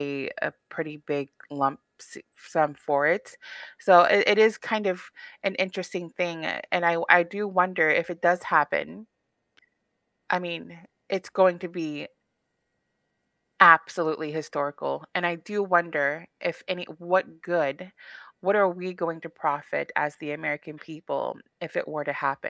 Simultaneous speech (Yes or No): No